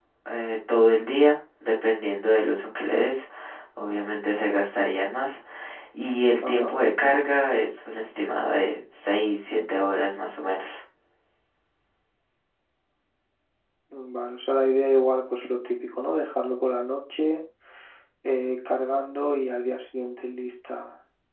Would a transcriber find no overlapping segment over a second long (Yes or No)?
Yes